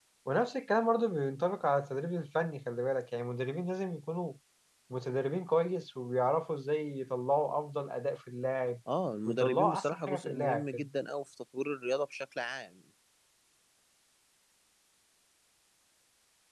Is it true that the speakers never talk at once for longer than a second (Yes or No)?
No